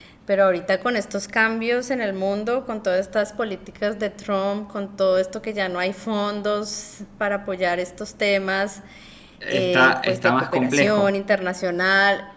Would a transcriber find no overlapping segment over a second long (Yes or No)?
No